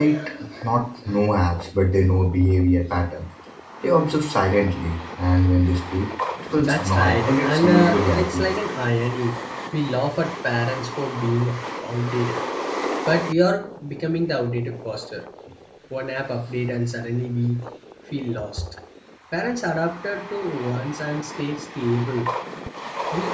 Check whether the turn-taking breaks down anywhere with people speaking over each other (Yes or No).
Yes